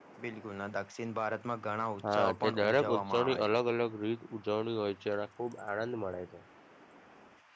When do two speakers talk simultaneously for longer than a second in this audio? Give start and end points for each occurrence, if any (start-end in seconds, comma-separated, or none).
2.1-3.6